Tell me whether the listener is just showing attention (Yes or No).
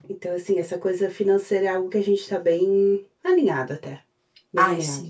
No